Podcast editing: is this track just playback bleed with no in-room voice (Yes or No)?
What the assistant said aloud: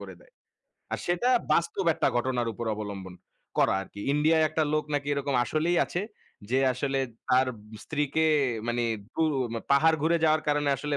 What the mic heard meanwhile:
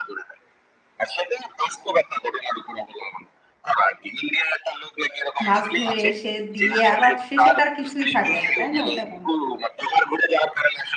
No